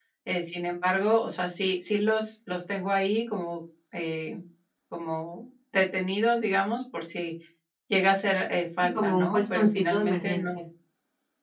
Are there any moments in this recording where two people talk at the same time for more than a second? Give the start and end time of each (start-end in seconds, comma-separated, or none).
8.9-10.4